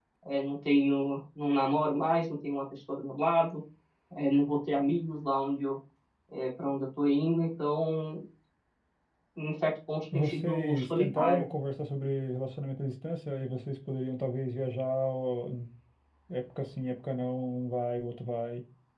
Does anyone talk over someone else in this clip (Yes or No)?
Yes